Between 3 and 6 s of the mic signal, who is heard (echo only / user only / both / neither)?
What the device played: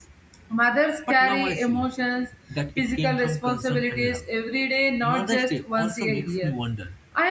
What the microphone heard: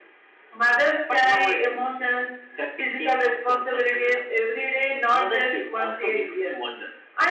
echo only